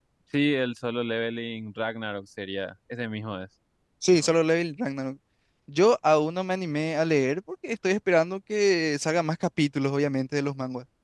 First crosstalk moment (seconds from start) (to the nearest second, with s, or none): none